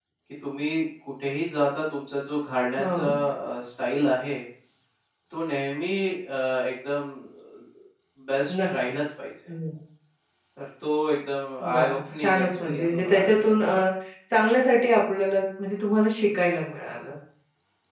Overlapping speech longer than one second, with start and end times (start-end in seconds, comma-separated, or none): 11.6-13.7